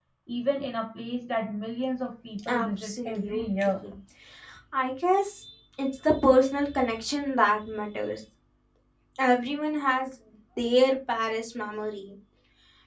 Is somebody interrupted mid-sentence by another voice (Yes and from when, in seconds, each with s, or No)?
Yes, from 2.5 s